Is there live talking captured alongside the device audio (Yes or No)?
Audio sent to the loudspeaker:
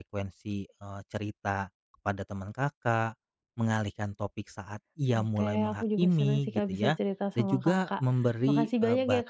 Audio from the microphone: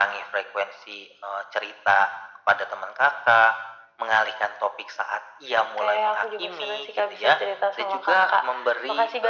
No